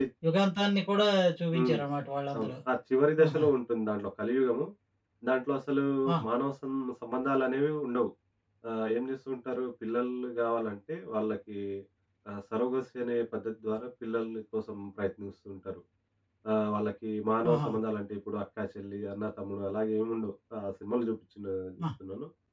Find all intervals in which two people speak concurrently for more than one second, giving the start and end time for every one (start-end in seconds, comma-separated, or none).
none